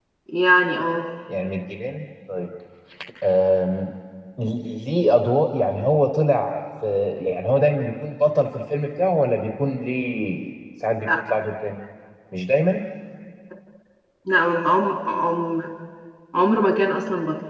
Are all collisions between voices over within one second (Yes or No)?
Yes